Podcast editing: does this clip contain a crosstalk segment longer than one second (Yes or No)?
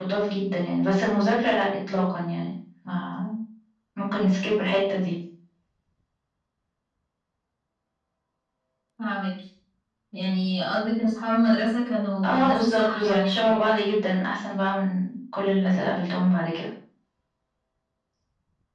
Yes